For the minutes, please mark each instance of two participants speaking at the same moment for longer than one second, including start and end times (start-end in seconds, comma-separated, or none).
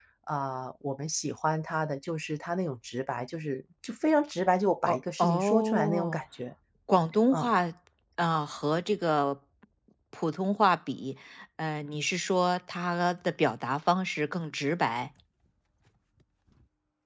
4.9-6.2